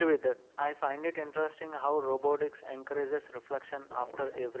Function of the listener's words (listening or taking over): listening